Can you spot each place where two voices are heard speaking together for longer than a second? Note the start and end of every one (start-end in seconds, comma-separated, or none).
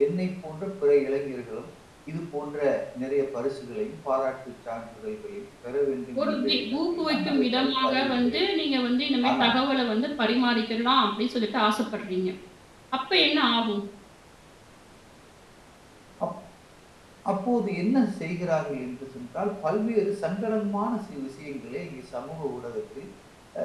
6.2-8.4